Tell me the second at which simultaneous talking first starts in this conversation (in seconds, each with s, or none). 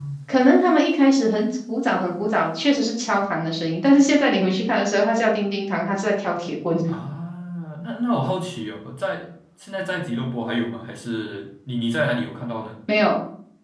none